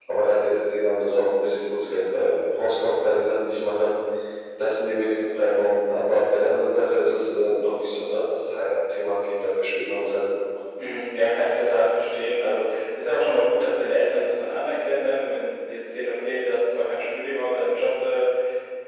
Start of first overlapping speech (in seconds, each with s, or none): none